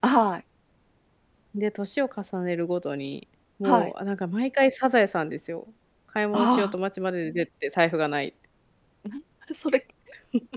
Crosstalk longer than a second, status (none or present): none